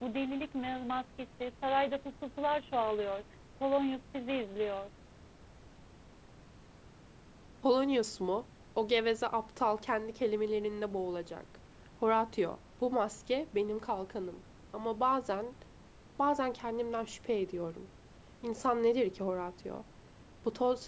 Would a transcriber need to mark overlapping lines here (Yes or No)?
No